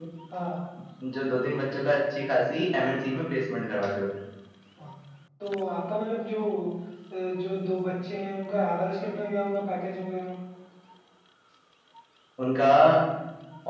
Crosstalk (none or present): none